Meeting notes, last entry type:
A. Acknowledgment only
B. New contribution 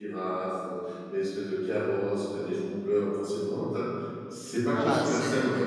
B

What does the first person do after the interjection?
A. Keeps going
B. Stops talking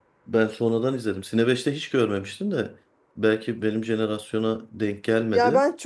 B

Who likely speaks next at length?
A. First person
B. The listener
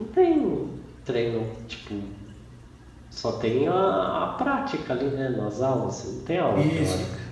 B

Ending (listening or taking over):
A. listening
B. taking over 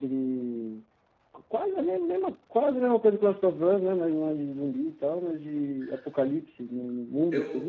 B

